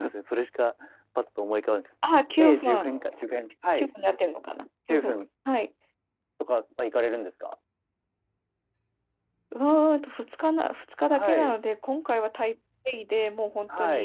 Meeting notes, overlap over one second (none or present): none